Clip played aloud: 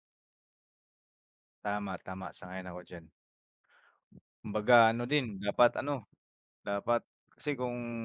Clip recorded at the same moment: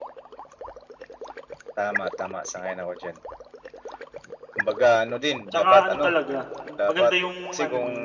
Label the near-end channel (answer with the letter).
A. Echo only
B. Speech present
B